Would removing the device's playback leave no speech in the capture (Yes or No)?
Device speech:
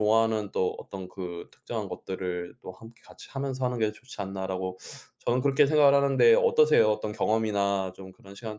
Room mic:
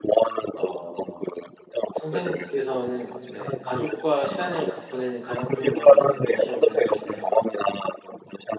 No